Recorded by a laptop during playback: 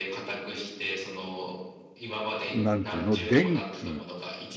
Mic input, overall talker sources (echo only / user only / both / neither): both